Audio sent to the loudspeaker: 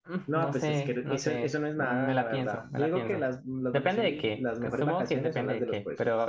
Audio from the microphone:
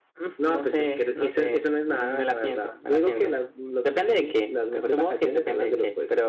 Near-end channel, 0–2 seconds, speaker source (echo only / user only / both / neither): echo only